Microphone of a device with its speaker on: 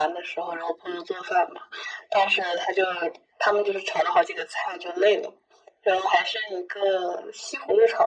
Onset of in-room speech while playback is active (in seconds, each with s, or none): none